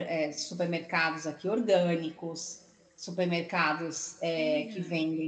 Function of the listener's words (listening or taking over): listening